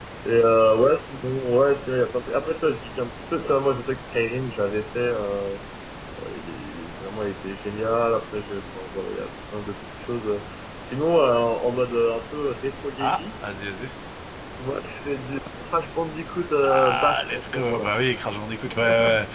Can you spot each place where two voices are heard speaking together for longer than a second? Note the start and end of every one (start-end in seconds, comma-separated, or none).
16.6-17.9